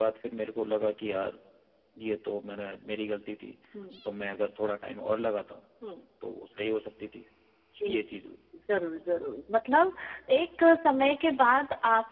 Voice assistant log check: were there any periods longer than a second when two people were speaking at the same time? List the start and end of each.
none

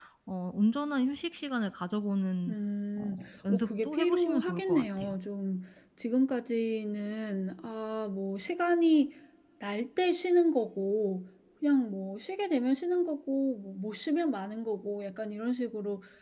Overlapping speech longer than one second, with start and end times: 3.0-5.2

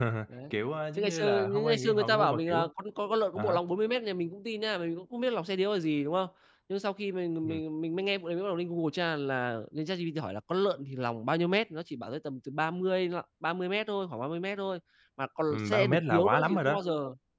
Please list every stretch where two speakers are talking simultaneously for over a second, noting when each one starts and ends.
1.0-2.6, 15.5-16.8

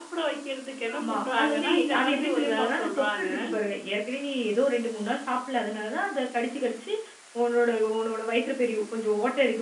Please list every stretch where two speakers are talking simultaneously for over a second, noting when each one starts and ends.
0.9-3.3

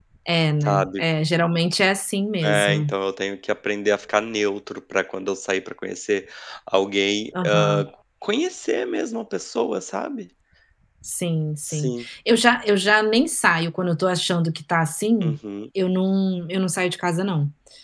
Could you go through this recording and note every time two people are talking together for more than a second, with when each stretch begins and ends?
none

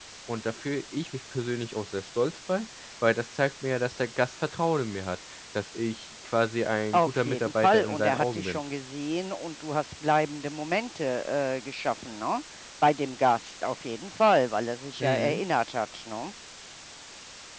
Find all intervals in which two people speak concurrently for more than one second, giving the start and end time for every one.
6.9-8.6

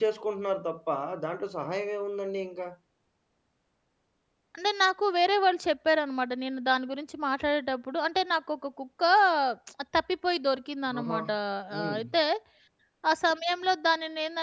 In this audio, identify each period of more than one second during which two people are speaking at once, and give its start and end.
none

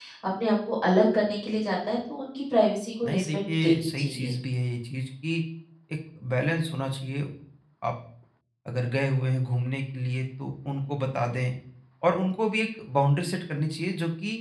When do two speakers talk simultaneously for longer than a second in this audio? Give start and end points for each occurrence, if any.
3.0-4.3

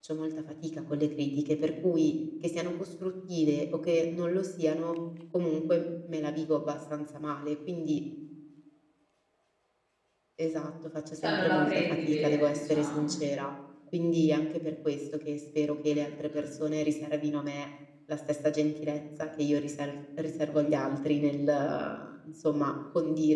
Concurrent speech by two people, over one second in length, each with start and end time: 11.2-13.2

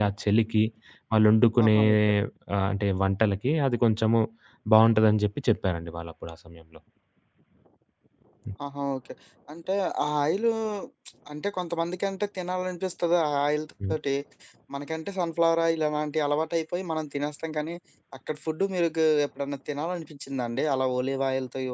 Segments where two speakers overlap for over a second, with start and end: none

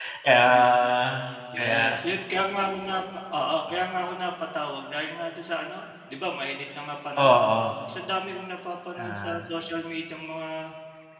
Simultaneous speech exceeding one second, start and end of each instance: none

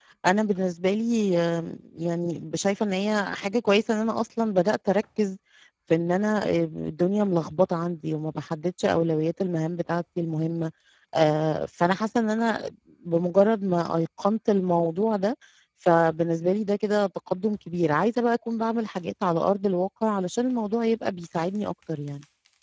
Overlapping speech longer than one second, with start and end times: none

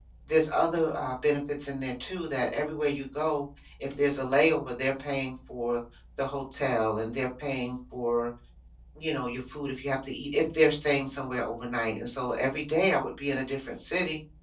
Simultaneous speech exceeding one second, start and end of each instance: none

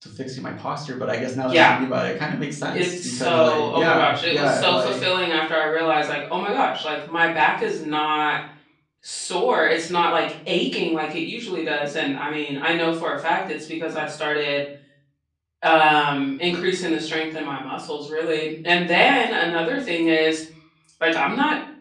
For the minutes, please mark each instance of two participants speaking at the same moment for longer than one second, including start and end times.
2.7-5.0

